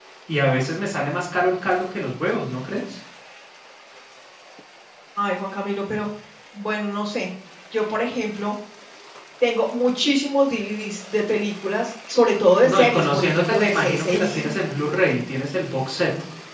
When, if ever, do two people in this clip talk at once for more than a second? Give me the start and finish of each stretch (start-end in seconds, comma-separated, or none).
12.6-14.5